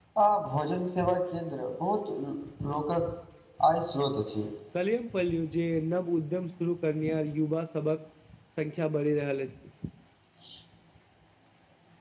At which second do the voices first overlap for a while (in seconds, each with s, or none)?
none